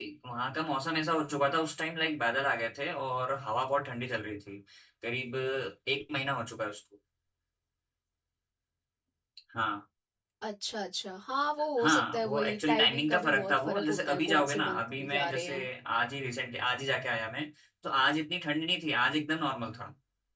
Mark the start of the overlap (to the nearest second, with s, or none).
12 s